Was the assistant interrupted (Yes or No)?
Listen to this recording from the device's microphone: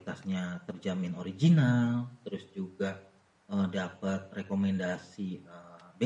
No